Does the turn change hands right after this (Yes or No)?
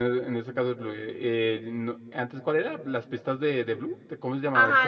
Yes